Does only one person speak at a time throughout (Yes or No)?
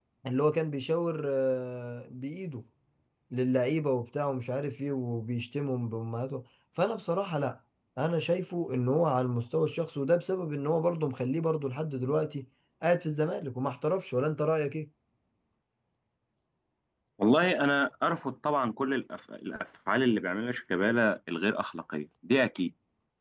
Yes